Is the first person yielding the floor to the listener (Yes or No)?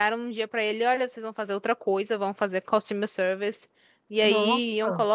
No